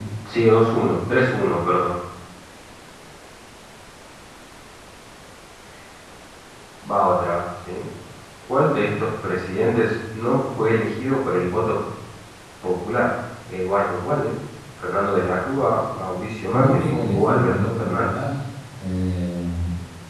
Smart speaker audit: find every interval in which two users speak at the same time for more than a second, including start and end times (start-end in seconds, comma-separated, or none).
16.5-18.1